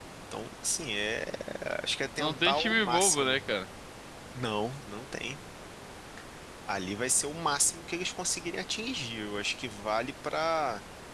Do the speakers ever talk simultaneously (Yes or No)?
Yes